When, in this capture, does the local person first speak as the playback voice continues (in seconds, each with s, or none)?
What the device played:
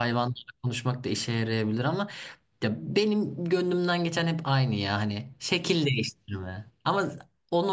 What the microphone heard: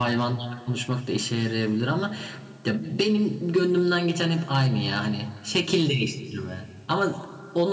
none